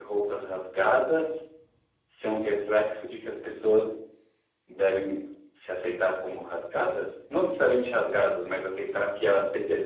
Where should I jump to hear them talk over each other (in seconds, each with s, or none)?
none